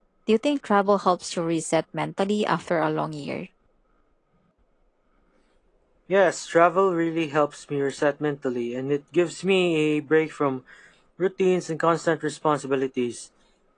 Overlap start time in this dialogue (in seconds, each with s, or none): none